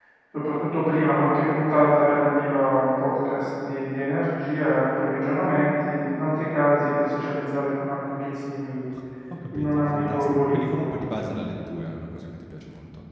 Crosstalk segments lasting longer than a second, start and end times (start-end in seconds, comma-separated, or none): 9.5-10.9